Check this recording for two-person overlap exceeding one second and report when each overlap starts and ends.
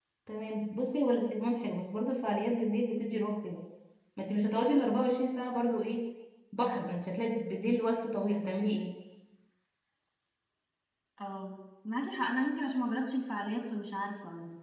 none

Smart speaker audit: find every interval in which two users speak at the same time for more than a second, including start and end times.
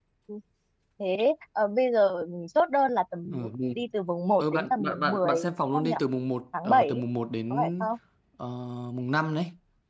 4.4-5.9

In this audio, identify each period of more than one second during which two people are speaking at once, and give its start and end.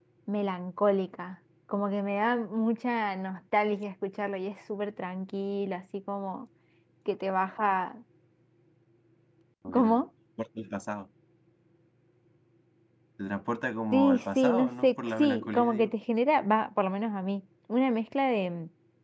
13.9-15.9

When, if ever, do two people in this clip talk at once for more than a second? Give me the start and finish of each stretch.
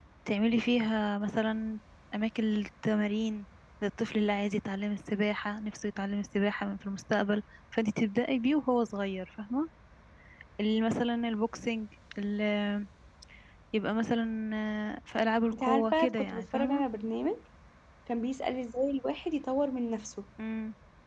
15.5-16.8

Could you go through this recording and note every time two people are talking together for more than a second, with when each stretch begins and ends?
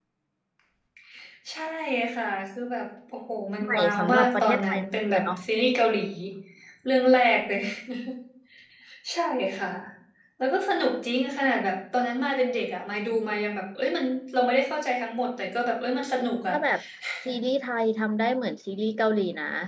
3.6-5.4

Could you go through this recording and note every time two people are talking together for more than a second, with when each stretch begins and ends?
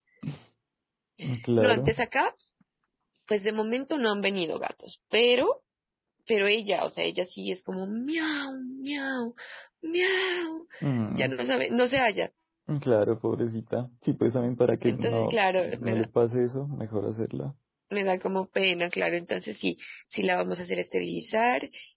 14.8-16.1

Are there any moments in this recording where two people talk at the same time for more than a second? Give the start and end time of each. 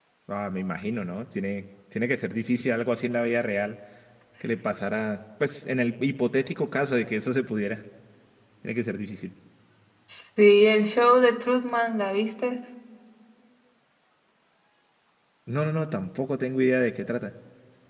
none

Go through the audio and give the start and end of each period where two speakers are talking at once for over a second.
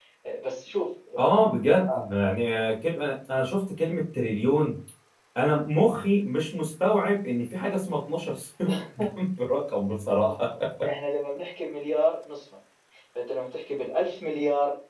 none

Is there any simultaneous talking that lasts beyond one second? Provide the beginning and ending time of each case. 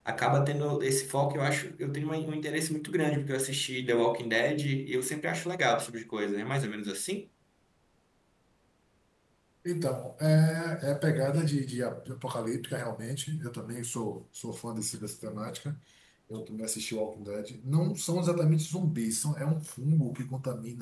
none

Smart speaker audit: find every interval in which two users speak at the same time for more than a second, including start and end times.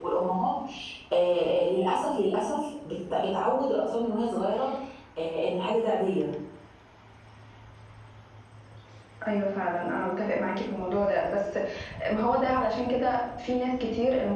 none

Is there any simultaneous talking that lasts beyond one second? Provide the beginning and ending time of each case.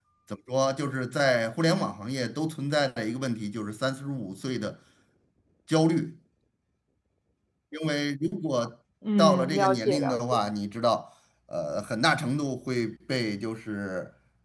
9.2-10.4

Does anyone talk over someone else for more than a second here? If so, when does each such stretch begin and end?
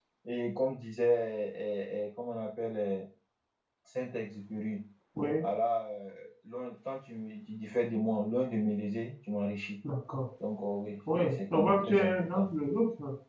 11.2-12.5

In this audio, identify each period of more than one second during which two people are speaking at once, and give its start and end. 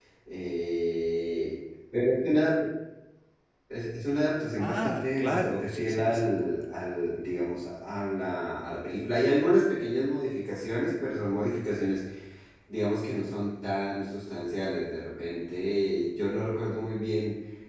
4.6-6.3

